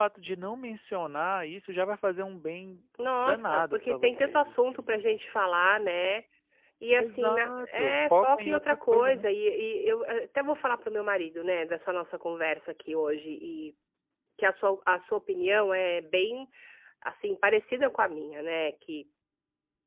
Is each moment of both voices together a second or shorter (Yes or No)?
No